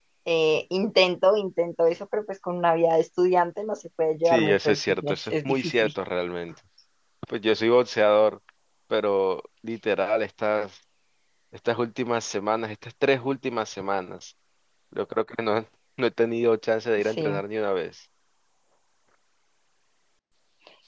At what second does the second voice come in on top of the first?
4.2 s

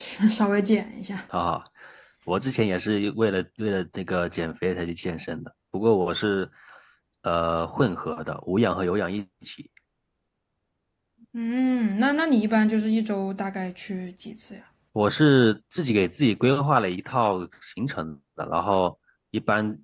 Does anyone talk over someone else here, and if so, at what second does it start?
none

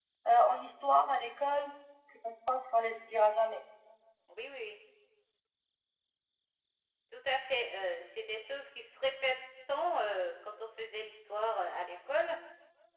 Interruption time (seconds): none

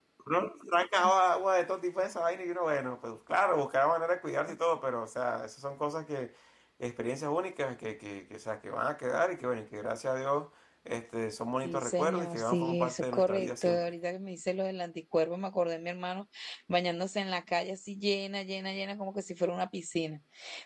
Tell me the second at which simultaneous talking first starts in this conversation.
11.6 s

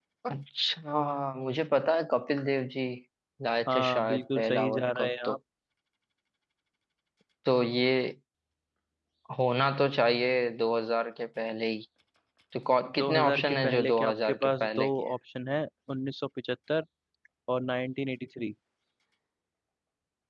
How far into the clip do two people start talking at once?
3.7 s

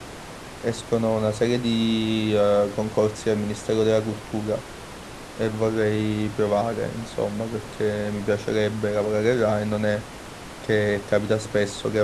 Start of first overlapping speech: none

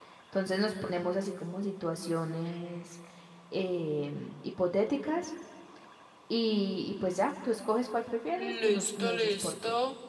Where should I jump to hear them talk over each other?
8.4 s

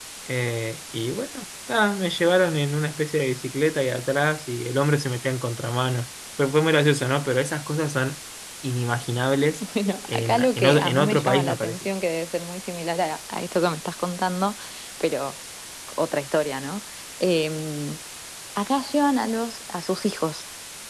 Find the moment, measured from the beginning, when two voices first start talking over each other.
10.1 s

